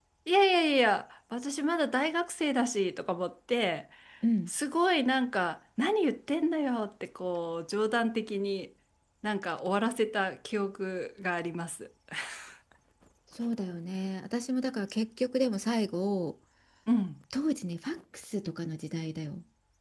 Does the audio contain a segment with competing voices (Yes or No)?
No